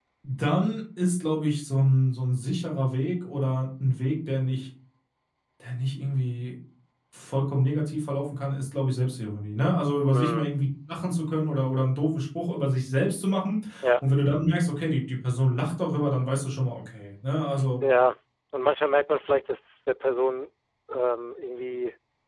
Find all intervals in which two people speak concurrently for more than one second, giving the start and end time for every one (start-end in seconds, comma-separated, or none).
none